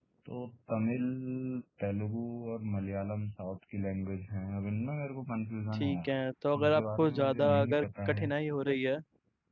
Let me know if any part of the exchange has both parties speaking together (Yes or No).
Yes